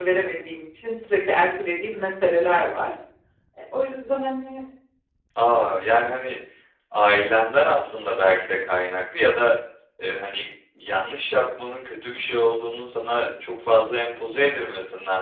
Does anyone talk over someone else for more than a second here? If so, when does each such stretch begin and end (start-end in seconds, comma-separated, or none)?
none